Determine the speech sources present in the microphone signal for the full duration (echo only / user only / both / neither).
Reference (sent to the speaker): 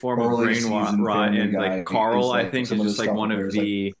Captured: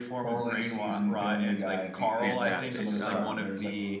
both